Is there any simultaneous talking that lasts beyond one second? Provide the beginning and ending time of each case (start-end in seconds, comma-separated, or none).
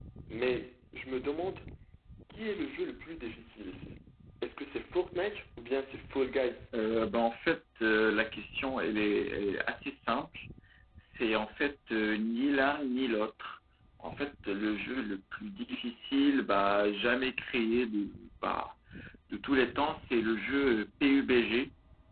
none